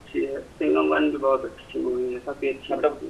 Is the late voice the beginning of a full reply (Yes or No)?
Yes